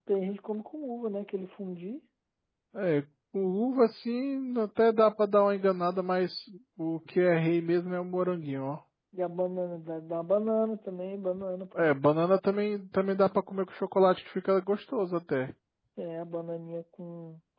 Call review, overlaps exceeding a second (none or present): none